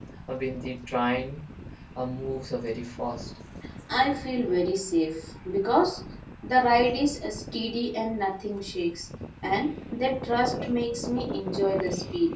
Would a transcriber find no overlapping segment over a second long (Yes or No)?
Yes